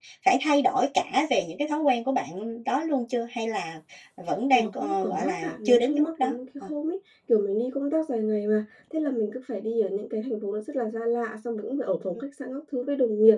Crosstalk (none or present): present